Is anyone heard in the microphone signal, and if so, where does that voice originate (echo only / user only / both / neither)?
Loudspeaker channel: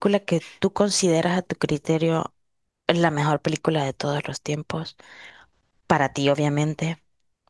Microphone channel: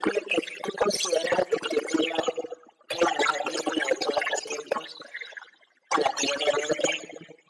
echo only